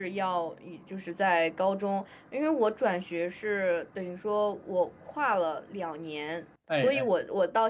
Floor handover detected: No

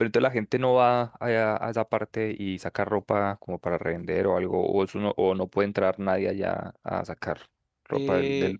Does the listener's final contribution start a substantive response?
Yes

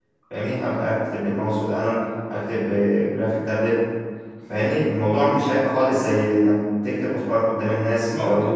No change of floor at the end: Yes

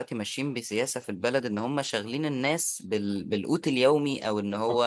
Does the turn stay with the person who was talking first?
Yes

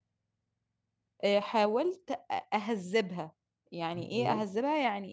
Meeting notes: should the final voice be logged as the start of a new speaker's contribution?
No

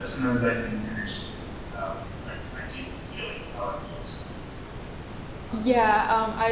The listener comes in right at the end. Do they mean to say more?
Yes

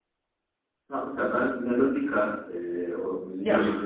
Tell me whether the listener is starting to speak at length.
No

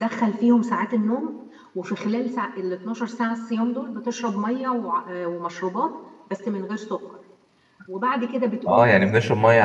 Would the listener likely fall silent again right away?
No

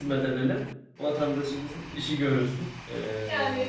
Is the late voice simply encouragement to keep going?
No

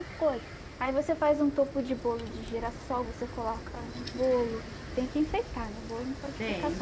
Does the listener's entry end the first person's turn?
Yes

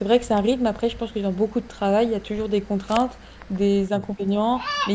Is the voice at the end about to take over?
No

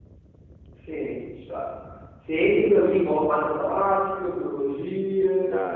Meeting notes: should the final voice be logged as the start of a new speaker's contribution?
Yes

